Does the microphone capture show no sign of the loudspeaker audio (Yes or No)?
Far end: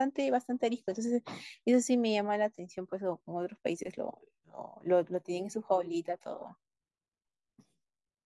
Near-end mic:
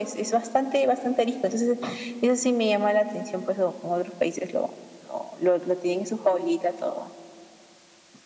No